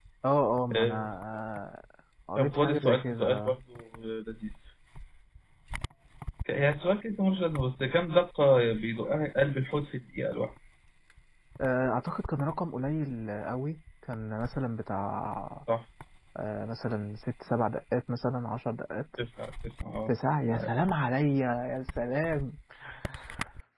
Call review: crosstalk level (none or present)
present